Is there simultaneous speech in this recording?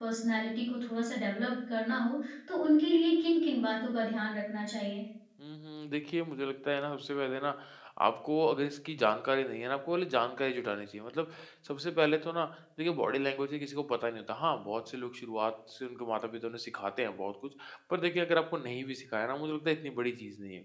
No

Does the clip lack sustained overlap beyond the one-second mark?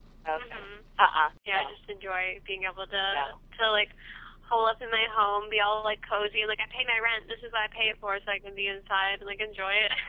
Yes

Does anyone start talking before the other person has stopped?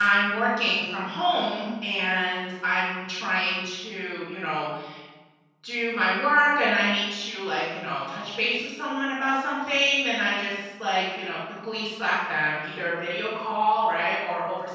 No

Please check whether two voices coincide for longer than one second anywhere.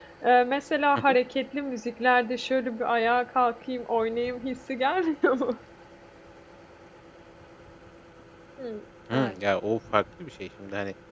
No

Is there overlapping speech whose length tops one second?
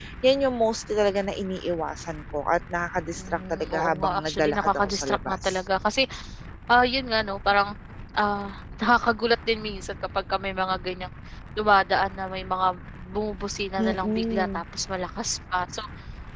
Yes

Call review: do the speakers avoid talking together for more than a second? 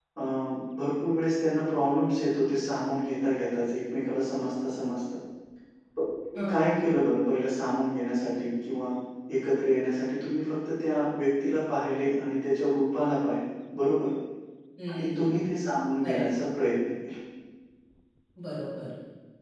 Yes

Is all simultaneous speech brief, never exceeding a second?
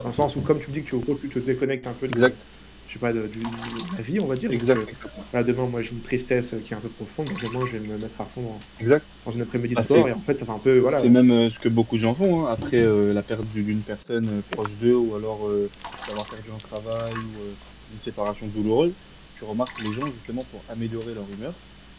Yes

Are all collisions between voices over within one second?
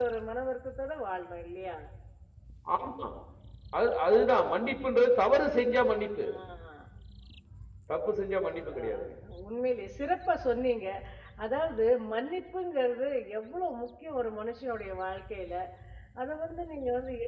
Yes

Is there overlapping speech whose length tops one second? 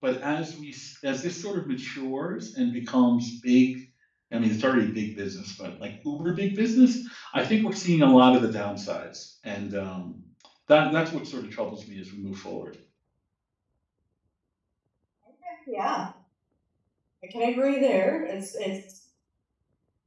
No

